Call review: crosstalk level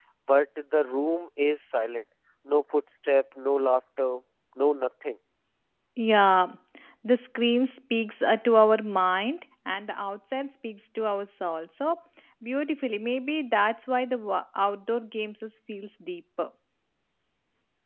none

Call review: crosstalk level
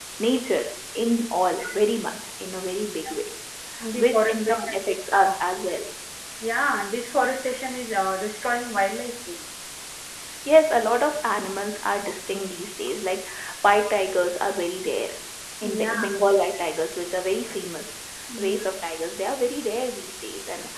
present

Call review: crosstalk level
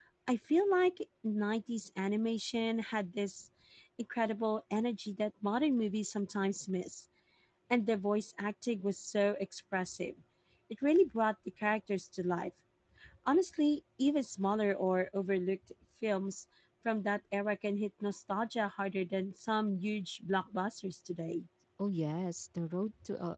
none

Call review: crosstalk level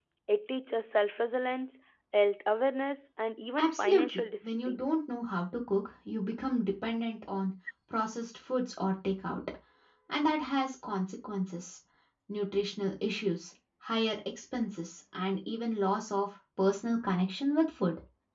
present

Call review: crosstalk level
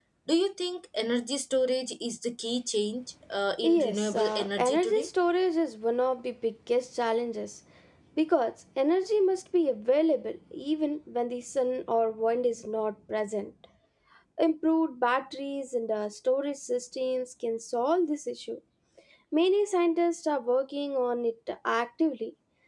present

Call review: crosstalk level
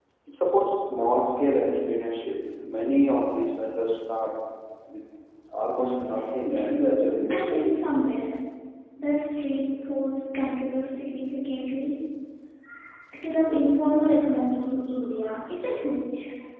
present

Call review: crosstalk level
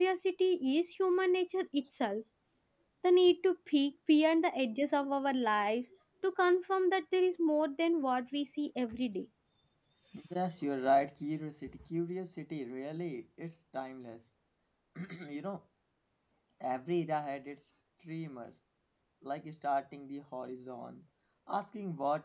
none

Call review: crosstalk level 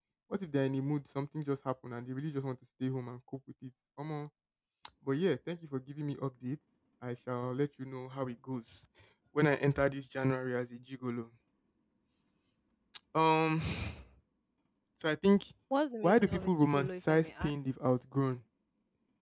present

